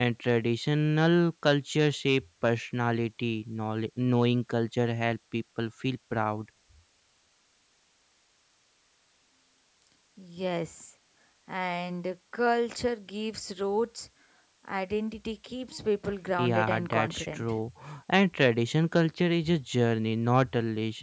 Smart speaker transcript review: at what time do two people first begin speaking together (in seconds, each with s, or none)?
16.4 s